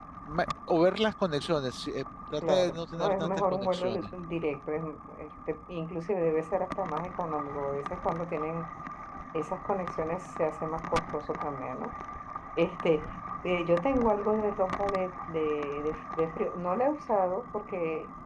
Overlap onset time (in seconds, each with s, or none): 2.4 s